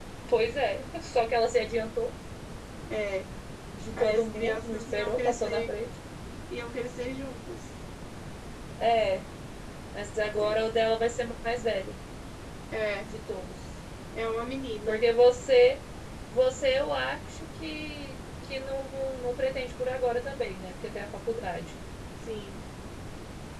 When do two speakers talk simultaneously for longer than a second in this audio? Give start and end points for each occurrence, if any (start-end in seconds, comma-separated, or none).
4.0-5.7